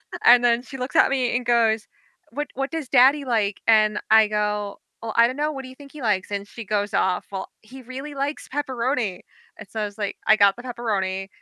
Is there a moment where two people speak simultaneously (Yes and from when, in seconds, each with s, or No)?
No